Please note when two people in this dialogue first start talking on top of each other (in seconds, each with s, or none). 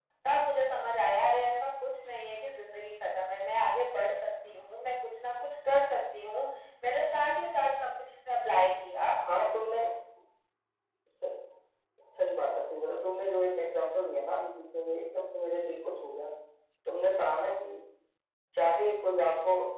none